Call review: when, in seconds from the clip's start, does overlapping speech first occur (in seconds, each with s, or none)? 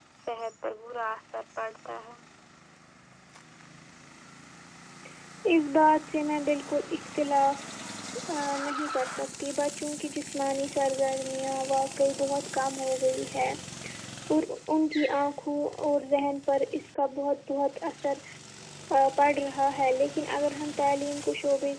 none